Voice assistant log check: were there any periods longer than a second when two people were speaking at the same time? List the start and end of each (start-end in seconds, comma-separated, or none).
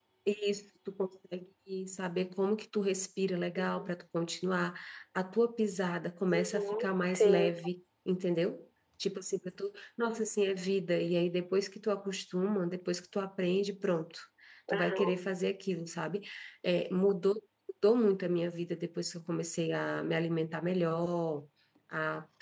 6.3-7.5